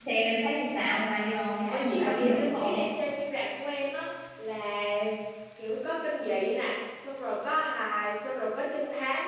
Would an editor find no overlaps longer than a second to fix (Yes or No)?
No